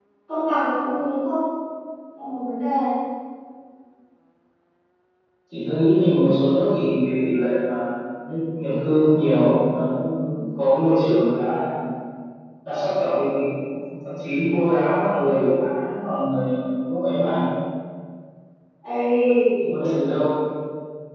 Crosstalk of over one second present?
No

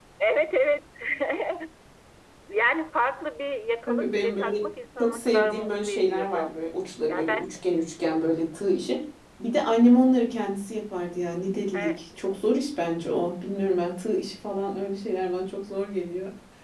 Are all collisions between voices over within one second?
No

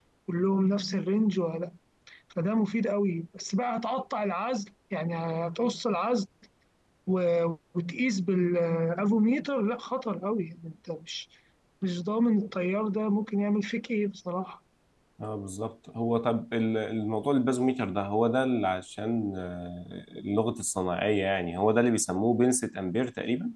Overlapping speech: No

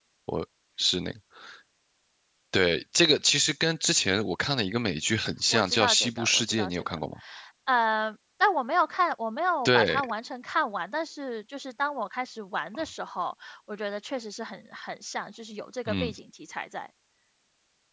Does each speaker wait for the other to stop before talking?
No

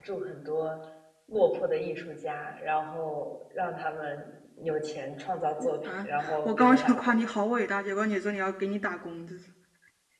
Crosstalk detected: Yes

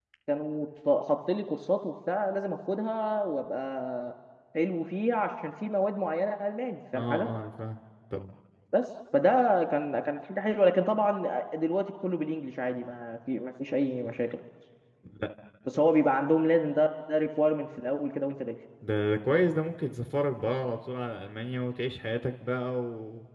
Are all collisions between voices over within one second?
Yes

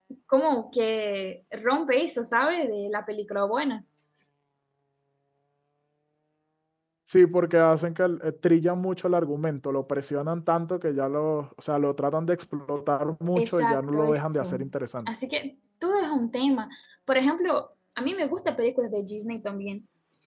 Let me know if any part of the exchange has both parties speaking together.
Yes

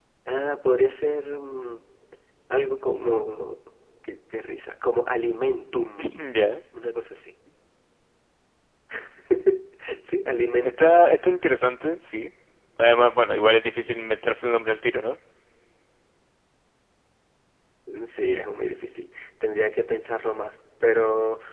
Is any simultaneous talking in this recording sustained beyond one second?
No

